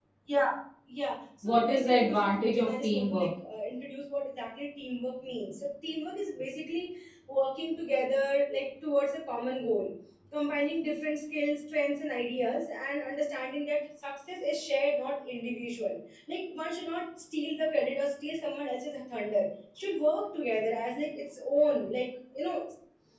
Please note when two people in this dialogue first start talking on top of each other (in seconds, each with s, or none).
1.4 s